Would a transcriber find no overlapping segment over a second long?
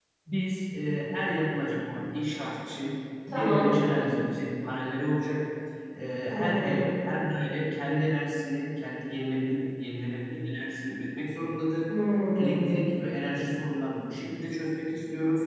Yes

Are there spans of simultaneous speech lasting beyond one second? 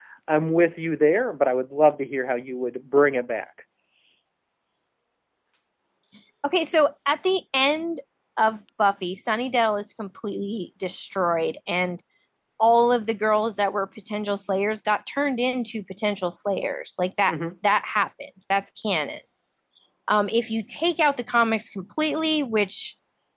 No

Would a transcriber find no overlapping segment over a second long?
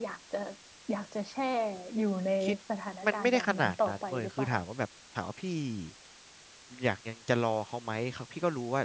No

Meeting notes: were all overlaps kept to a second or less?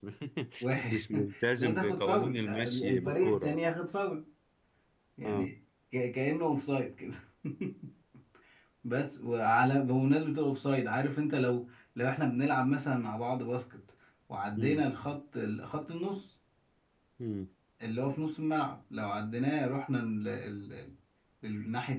No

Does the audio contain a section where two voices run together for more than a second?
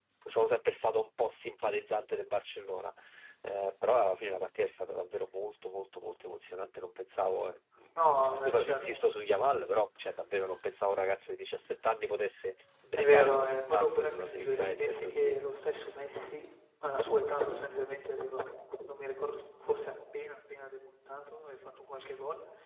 Yes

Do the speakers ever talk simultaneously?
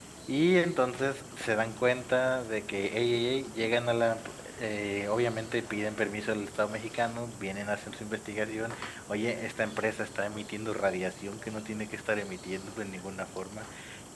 No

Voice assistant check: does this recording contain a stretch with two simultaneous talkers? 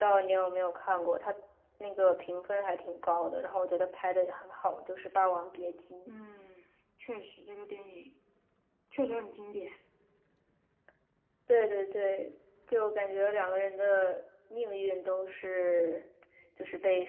No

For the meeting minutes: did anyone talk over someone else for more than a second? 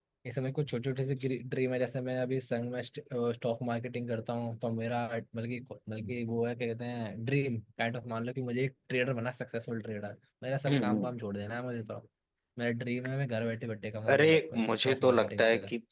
Yes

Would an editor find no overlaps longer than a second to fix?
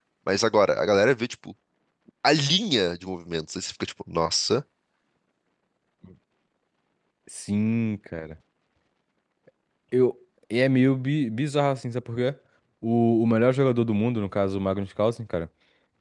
Yes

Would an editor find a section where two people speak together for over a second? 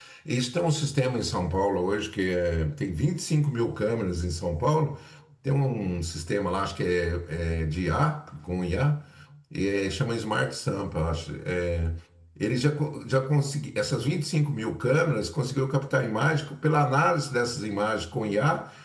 No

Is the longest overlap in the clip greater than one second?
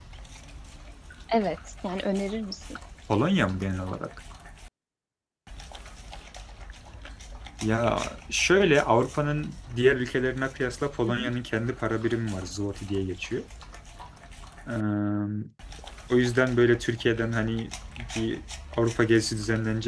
No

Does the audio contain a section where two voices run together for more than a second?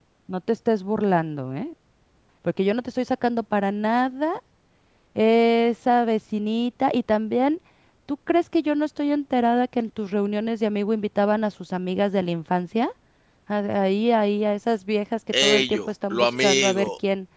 Yes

